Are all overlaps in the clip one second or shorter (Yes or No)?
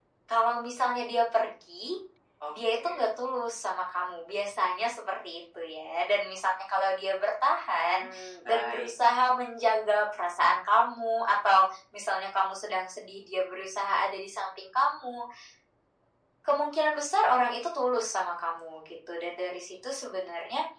Yes